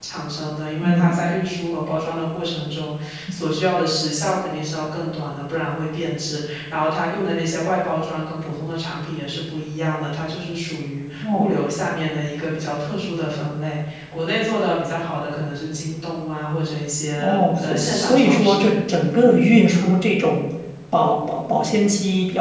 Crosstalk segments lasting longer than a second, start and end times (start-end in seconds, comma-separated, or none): 17.2-18.7